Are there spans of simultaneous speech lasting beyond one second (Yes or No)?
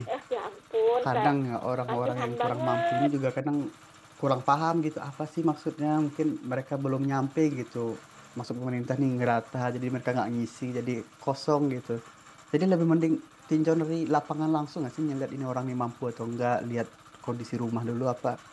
Yes